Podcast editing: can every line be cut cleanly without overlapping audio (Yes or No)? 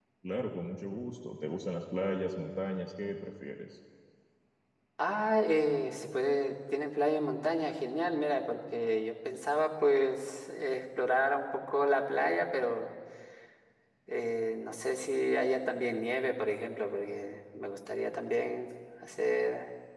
Yes